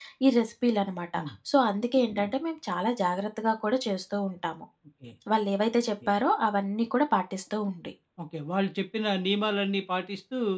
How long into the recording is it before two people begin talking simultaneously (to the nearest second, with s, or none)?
none